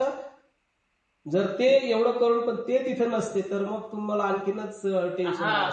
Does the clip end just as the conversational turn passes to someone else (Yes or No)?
Yes